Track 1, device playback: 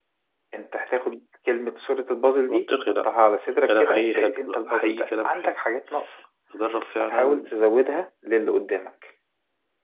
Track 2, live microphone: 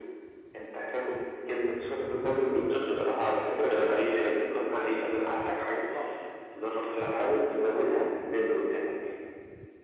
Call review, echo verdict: present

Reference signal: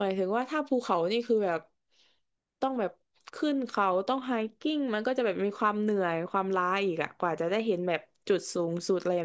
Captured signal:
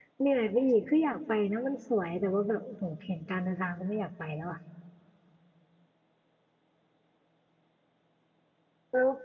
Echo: none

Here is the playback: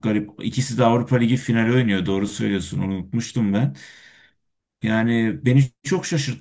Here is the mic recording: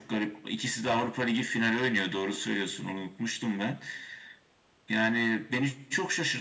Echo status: present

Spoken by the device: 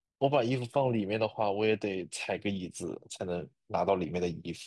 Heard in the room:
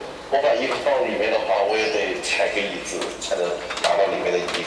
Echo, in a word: present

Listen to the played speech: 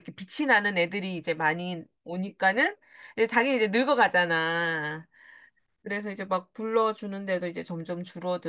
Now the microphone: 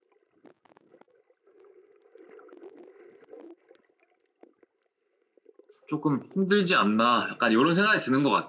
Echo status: none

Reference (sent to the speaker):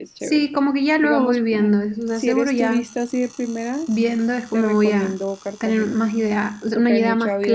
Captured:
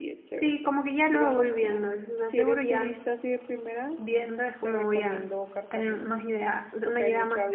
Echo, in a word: present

